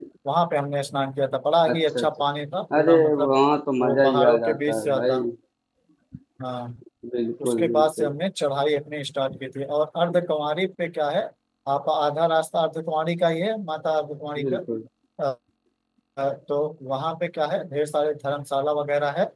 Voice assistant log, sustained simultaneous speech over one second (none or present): present